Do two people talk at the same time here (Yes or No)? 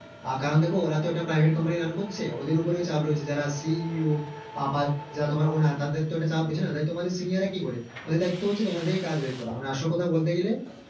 No